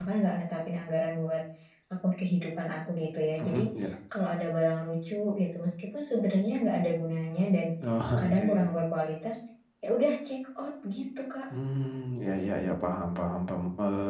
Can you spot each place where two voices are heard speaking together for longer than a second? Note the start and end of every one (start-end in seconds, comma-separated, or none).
none